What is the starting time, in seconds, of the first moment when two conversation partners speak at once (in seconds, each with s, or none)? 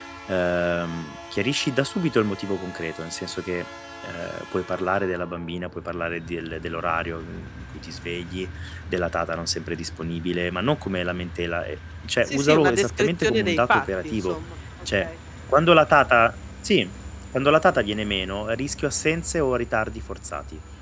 12.2 s